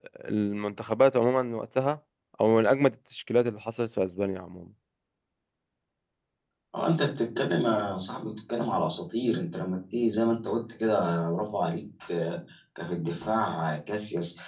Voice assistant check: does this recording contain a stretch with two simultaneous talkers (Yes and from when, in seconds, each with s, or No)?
No